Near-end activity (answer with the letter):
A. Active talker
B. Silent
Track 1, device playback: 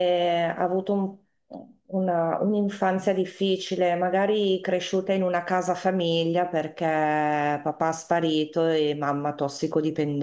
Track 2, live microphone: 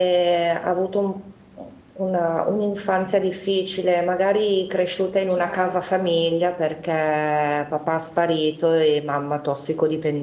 A